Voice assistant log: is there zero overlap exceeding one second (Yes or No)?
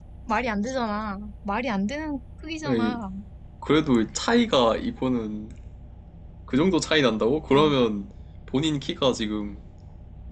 Yes